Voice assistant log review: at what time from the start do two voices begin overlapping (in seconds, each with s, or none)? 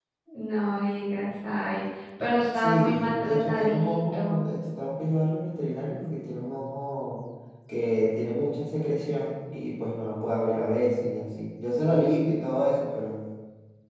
2.6 s